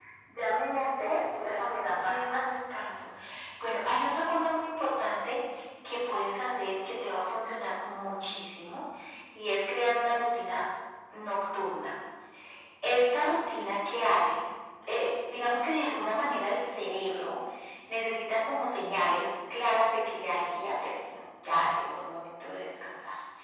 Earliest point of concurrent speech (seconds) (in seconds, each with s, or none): 0.7 s